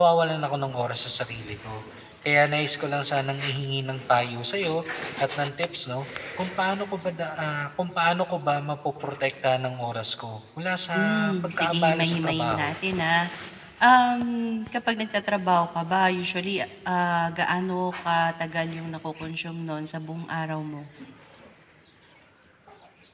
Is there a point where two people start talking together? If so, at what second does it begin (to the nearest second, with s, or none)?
11 s